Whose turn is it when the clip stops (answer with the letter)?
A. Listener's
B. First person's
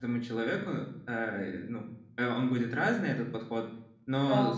B